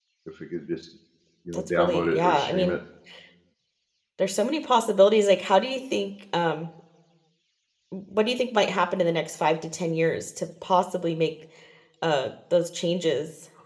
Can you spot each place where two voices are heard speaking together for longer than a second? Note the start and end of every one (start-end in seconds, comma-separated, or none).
1.5-2.8